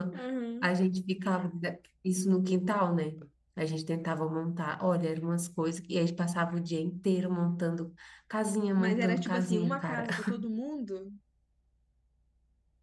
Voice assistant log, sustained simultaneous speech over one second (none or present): present